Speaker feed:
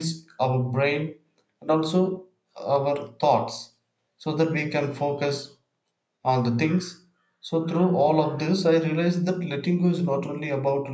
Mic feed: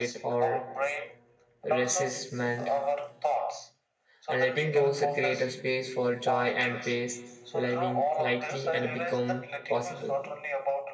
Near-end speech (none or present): present